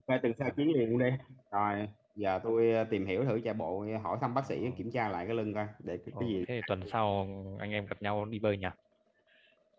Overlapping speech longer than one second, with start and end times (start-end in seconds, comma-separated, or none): none